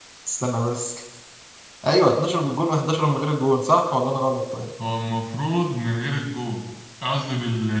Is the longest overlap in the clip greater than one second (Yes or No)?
No